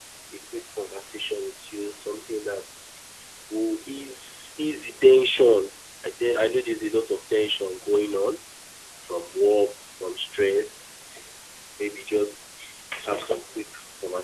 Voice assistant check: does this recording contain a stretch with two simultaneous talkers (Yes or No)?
No